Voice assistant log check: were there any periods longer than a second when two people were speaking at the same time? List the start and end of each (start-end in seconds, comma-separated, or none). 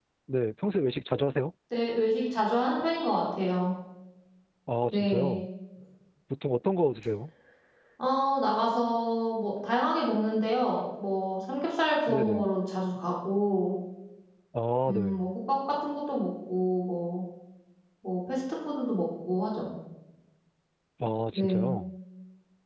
none